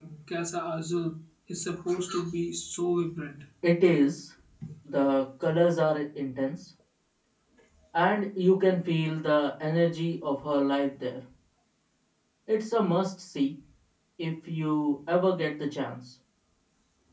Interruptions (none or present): none